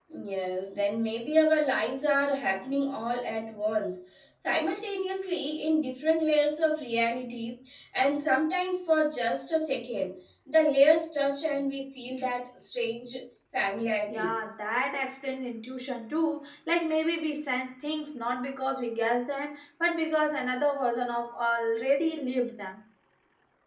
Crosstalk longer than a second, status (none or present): none